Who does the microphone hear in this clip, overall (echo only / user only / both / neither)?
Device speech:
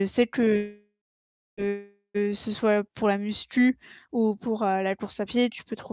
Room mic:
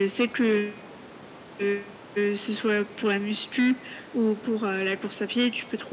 echo only